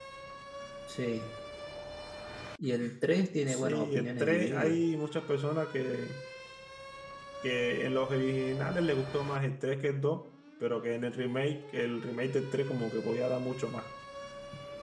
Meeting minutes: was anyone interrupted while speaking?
Yes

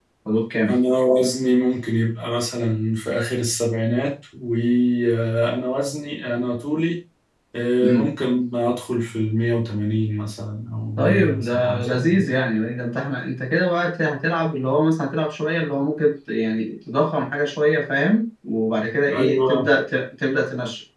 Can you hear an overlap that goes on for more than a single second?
Yes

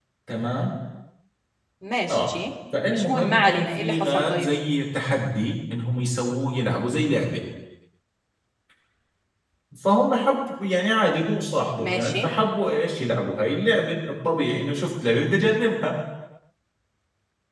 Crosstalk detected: Yes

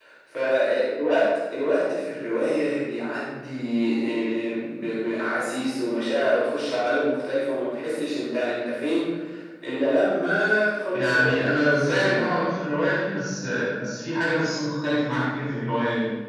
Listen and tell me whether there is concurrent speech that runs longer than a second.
Yes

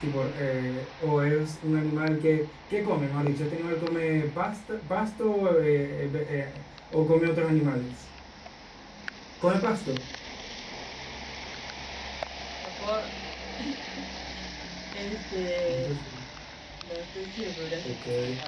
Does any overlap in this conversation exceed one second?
No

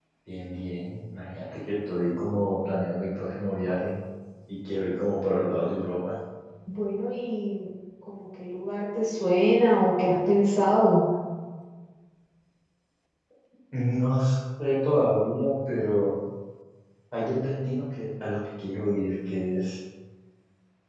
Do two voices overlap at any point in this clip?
No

